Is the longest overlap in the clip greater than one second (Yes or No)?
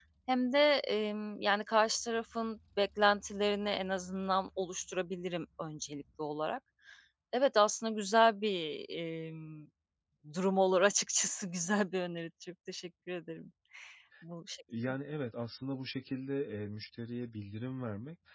No